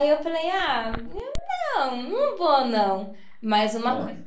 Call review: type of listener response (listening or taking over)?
listening